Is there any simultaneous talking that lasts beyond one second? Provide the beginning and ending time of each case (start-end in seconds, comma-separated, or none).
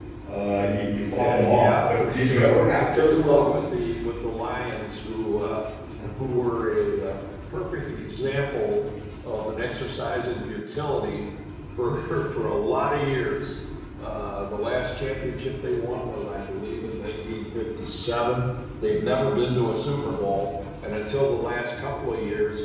1.2-3.6